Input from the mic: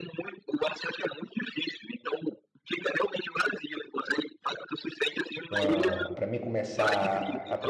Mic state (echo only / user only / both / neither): both